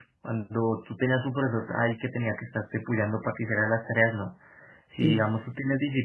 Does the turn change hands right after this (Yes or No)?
No